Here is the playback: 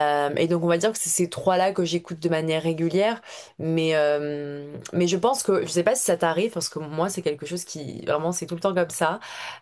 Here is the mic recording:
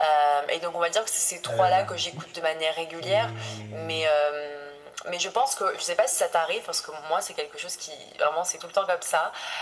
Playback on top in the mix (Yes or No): Yes